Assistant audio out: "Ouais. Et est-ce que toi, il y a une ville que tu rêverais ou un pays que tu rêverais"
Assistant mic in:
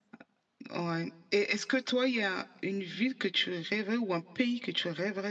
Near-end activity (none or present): none